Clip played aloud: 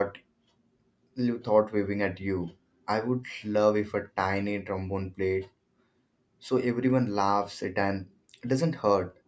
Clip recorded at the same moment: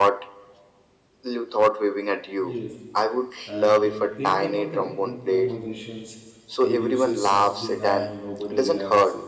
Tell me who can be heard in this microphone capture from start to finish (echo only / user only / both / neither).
both